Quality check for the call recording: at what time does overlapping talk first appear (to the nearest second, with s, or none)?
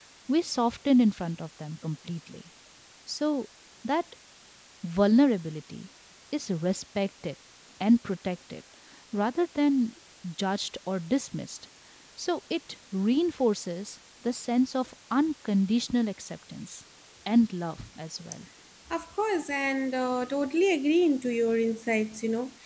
none